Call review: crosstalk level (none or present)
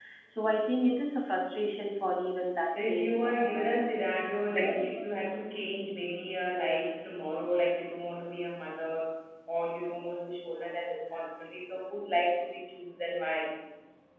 present